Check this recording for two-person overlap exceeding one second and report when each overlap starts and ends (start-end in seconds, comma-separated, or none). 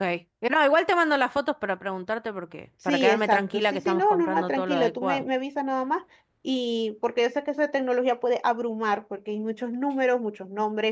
2.9-5.2